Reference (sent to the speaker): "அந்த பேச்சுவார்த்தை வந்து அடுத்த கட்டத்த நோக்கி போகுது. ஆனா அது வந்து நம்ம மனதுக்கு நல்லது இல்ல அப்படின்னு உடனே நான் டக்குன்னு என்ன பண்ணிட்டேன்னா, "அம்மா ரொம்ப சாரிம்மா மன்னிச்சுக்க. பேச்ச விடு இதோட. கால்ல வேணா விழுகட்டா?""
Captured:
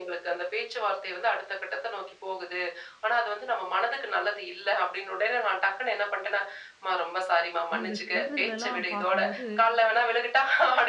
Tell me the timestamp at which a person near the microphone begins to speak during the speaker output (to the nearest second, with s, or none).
8 s